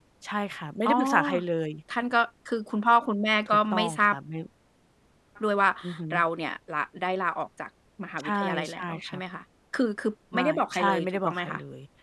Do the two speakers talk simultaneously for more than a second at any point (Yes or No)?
Yes